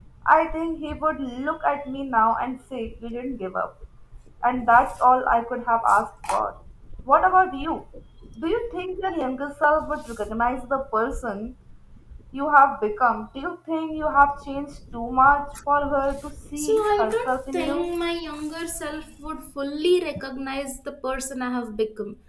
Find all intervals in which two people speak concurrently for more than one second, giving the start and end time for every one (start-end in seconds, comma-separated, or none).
16.6-17.9